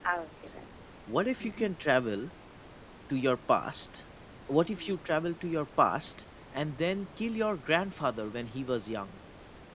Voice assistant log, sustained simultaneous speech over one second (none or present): none